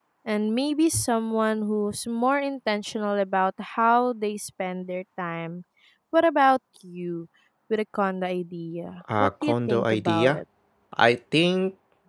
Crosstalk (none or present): present